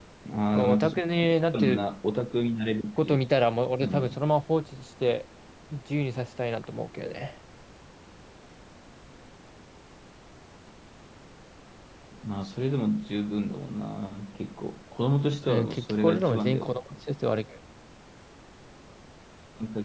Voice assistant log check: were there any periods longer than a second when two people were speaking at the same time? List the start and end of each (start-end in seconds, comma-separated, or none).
15.5-16.7